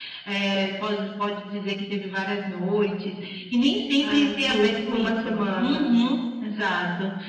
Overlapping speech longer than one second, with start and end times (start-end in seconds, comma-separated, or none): 4.0-5.9